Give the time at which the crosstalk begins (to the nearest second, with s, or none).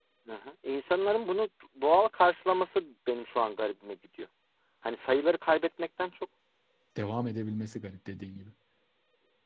none